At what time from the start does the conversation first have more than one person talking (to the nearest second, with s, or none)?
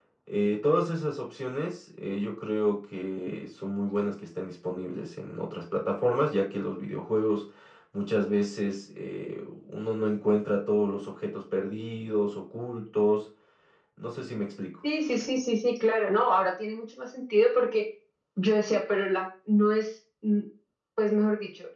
none